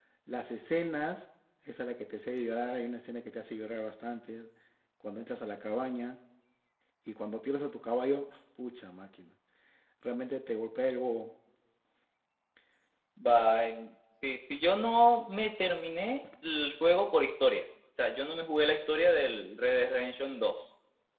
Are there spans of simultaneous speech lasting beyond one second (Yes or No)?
No